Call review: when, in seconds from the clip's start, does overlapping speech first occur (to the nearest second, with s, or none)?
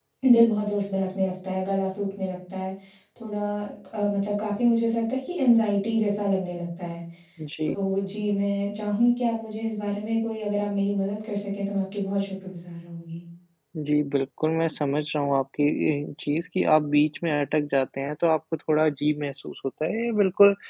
none